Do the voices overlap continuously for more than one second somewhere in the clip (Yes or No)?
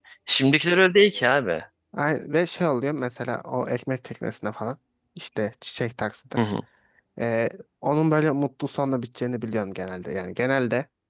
No